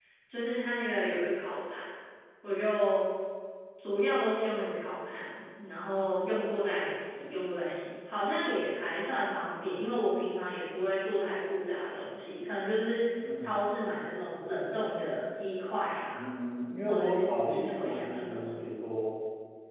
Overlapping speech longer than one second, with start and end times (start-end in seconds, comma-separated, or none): 16.9-18.7